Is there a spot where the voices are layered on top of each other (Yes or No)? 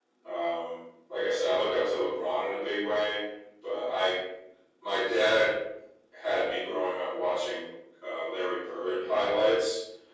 No